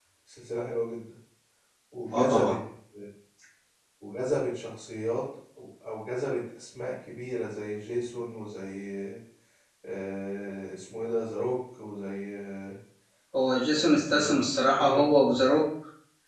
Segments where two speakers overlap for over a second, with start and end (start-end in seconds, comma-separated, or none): 13.7-15.0